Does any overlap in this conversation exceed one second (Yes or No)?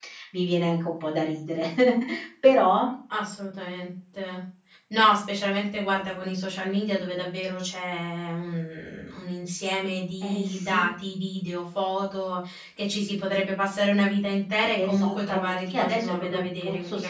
Yes